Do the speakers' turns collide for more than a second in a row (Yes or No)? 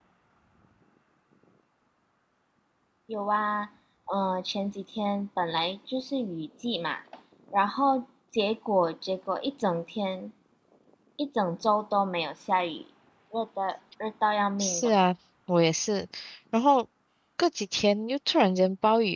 No